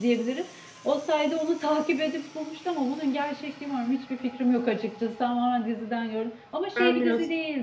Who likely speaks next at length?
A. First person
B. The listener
A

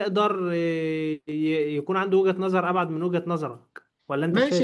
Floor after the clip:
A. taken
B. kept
A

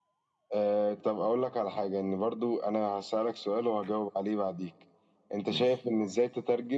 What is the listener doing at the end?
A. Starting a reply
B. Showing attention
B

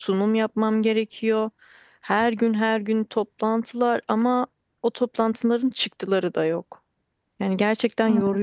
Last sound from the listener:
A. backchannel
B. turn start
B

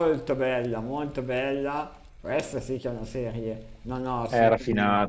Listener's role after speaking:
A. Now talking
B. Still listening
A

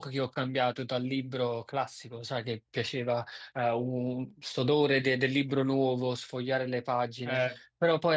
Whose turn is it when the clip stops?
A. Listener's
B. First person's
B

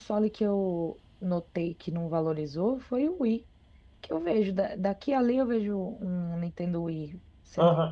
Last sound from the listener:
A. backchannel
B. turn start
B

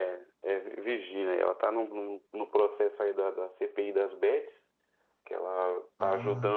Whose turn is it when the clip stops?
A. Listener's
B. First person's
B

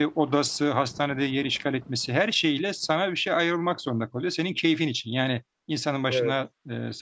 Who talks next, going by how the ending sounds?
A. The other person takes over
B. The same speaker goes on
B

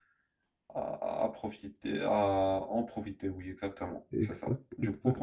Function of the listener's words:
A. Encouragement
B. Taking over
B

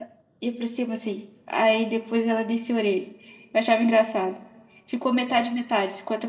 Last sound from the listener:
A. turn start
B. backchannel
B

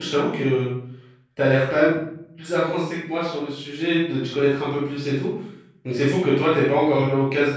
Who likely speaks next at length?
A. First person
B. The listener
A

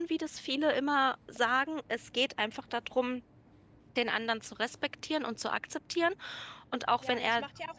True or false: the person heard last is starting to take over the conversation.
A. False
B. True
B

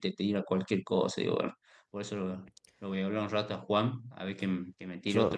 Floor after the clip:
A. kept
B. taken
A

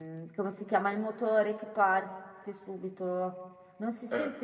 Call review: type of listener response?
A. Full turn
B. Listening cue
B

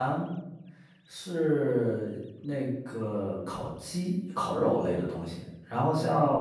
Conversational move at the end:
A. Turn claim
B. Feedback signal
B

